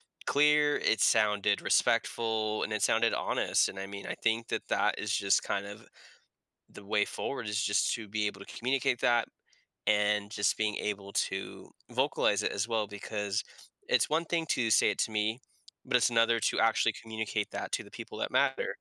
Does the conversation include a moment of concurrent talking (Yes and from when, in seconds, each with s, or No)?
No